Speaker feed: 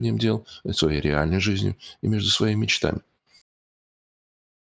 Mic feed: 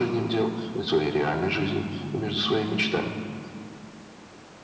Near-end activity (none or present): present